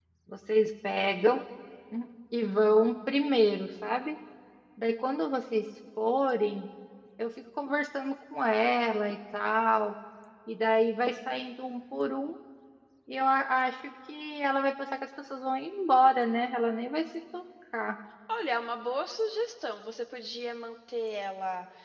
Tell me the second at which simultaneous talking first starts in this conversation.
none

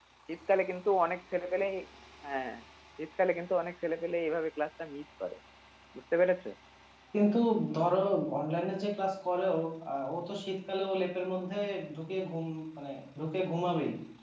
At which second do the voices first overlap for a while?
none

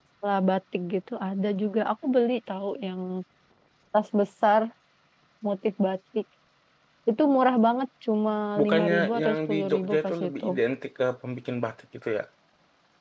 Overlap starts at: 8.6 s

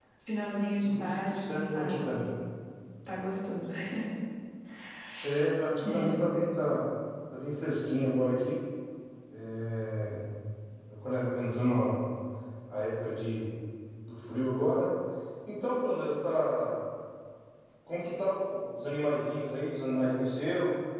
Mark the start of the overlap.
0.8 s

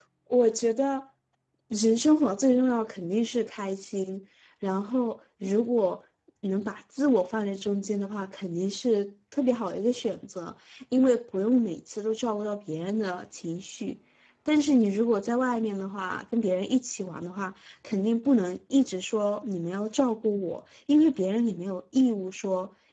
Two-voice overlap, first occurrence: none

